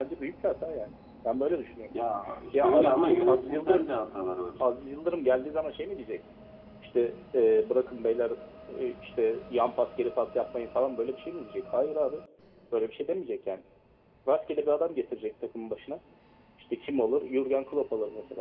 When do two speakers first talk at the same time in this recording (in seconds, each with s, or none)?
2.5 s